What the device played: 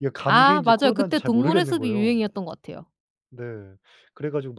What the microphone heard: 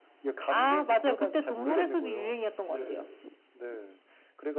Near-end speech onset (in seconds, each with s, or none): 2.7 s